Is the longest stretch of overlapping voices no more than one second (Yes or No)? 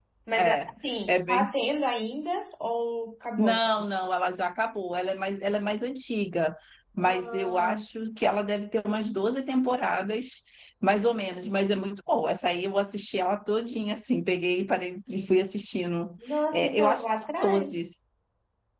No